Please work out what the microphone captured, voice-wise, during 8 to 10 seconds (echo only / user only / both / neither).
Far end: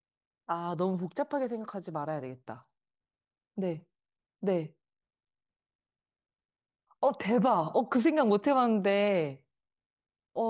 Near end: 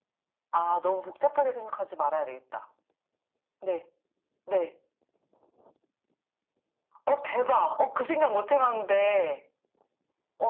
echo only